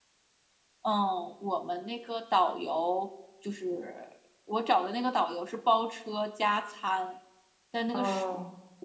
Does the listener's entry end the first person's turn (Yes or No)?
No